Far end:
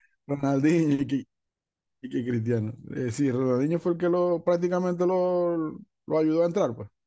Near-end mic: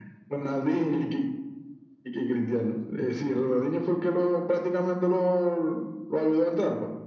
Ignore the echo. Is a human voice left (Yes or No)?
No